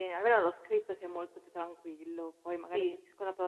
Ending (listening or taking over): listening